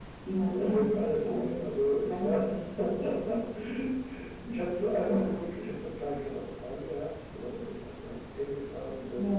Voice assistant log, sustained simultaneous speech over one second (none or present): present